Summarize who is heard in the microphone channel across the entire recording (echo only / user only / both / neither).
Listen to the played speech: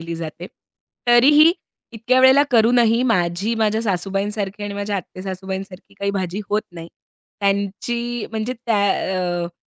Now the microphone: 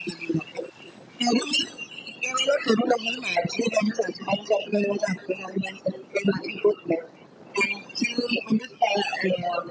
echo only